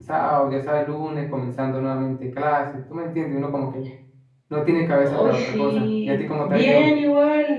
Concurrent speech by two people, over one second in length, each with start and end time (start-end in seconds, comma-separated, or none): 5.0-6.9